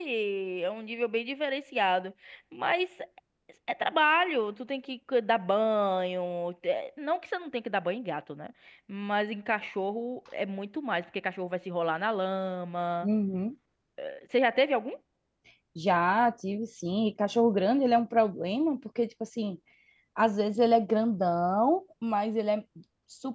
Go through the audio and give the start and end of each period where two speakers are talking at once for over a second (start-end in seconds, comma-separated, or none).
none